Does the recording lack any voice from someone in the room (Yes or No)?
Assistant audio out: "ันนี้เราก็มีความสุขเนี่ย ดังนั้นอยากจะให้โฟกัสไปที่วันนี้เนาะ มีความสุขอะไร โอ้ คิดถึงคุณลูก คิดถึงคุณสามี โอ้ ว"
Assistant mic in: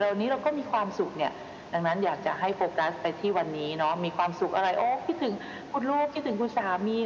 Yes